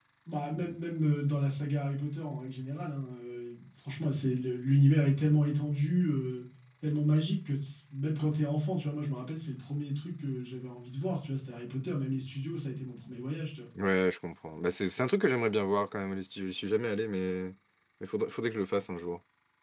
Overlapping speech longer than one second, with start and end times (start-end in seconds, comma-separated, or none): none